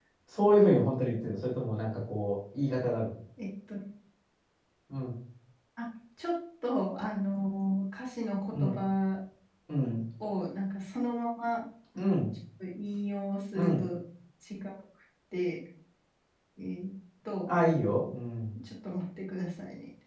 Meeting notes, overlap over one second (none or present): none